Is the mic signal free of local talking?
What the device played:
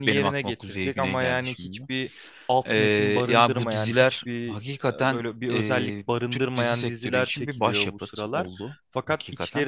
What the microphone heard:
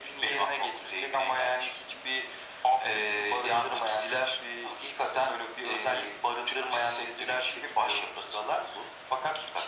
Yes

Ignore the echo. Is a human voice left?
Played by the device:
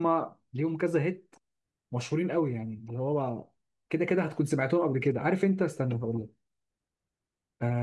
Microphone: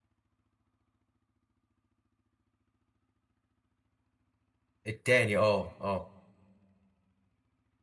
Yes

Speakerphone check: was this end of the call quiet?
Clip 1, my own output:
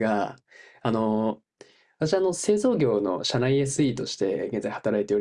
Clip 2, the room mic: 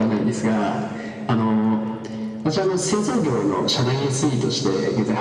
Yes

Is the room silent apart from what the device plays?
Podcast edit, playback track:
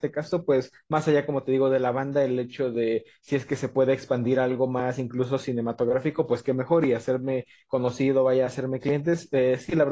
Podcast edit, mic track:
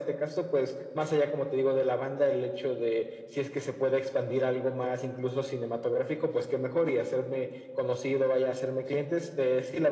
Yes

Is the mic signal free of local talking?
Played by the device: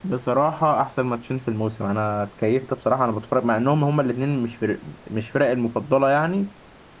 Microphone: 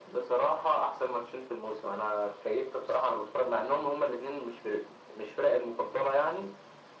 Yes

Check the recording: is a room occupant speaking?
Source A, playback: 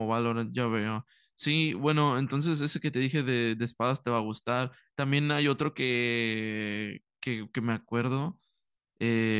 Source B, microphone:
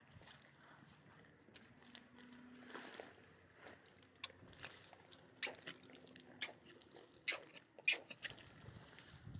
No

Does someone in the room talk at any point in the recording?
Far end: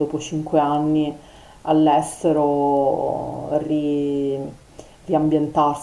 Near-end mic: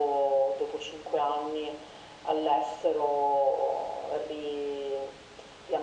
No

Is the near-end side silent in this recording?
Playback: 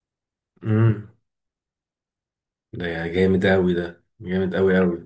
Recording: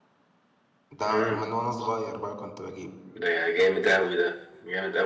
No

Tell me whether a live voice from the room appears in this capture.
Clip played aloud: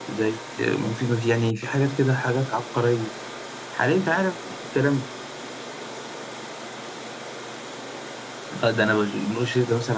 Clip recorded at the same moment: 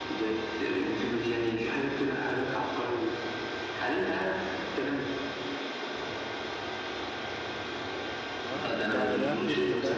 Yes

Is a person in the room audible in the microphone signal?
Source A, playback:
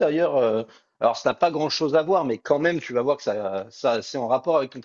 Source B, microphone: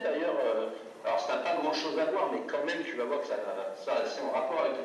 No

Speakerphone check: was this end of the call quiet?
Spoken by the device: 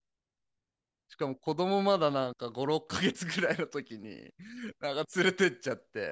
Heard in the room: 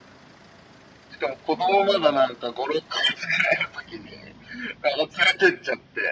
No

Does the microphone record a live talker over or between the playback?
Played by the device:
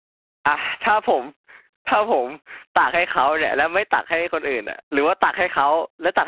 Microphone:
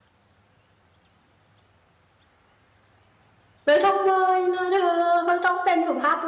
Yes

